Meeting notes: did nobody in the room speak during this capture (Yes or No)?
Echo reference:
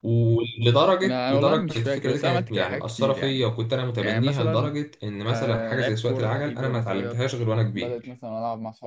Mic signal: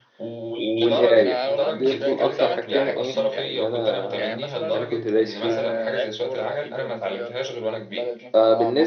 No